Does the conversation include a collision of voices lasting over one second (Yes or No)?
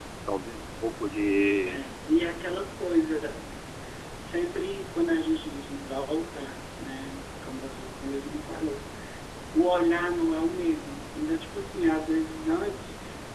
No